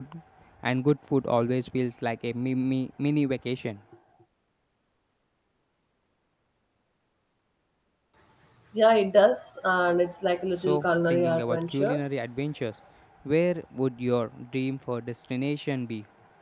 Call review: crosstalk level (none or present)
present